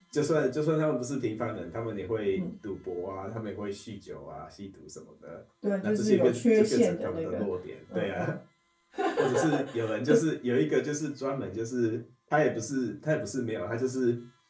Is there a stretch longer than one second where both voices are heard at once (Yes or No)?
Yes